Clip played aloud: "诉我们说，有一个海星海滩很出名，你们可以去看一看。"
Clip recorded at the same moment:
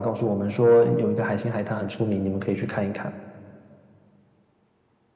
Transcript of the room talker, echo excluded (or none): none